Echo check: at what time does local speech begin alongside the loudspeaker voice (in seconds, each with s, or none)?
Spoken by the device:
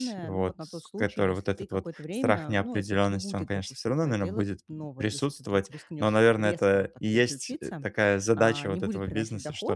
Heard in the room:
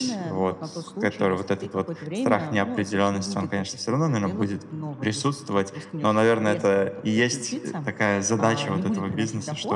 none